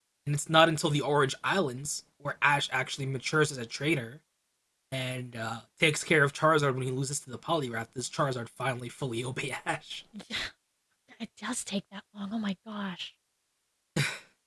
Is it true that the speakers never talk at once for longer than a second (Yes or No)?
Yes